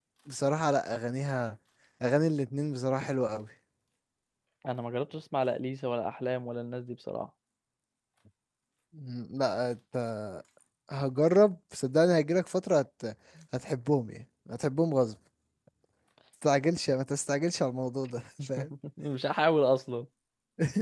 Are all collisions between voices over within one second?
Yes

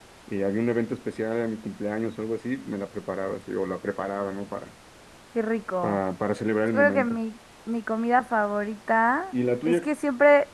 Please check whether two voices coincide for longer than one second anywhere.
No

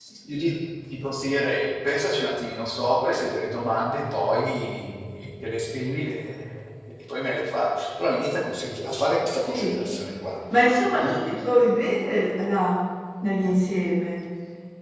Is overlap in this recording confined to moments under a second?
Yes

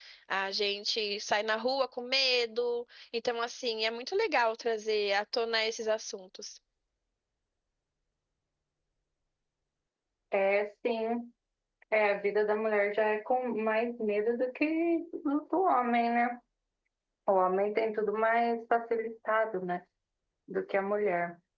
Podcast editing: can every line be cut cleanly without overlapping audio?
Yes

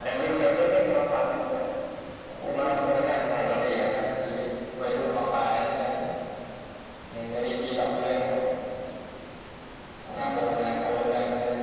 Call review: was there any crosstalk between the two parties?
Yes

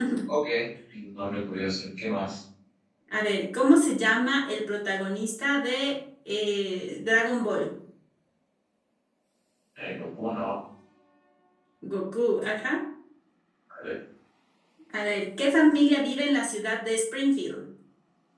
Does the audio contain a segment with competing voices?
No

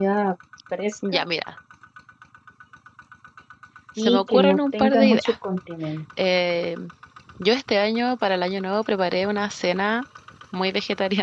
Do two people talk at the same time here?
Yes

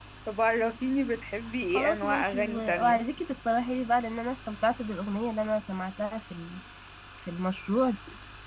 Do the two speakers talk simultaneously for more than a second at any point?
Yes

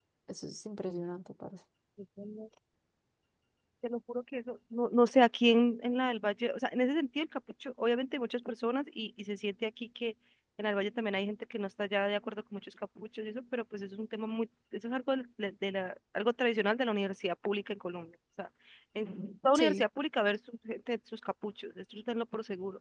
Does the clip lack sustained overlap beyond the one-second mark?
Yes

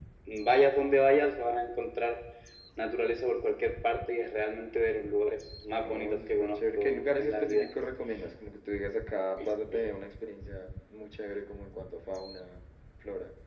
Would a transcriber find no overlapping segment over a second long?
No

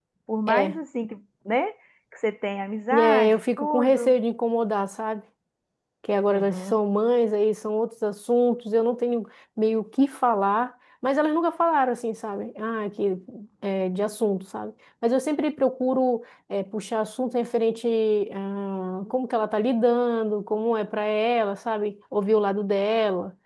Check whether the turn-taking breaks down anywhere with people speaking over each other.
Yes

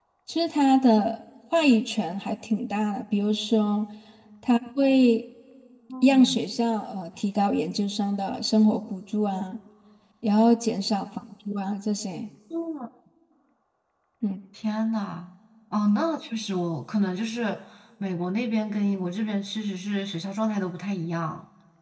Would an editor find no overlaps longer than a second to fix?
Yes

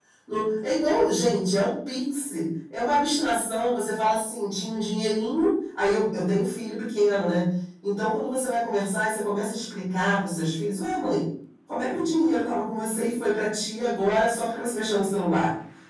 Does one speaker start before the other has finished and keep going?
No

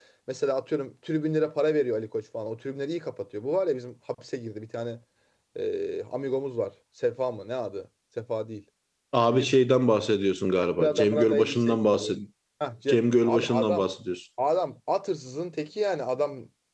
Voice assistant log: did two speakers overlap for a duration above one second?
Yes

